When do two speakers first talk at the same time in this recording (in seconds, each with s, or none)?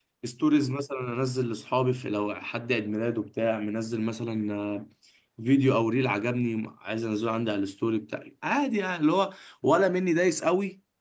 none